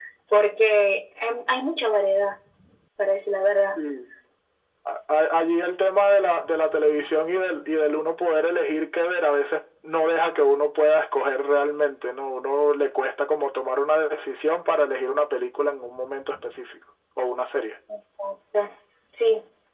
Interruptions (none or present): none